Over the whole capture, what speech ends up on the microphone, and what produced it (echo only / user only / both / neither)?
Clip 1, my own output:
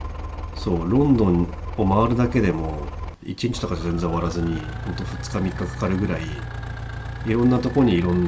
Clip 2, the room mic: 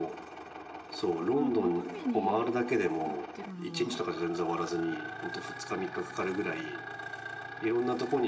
both